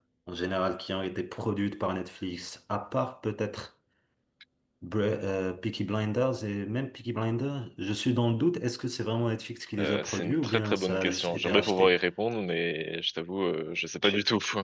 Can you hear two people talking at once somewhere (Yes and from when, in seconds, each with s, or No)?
Yes, from 9.8 s